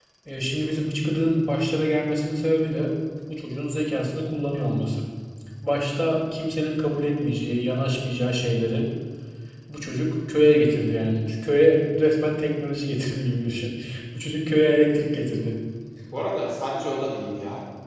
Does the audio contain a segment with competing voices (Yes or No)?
No